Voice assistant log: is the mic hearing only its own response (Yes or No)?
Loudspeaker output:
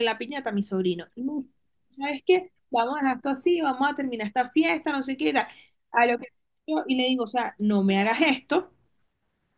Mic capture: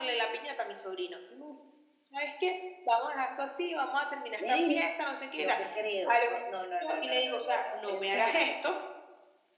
No